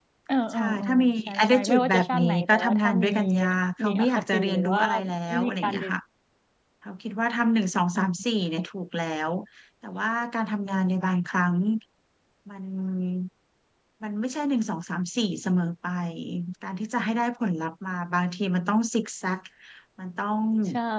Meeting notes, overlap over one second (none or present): present